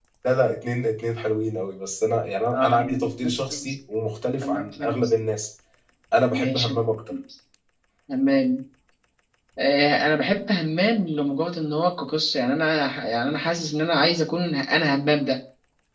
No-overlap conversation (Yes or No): No